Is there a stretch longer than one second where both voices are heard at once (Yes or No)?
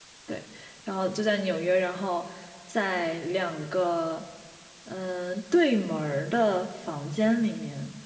No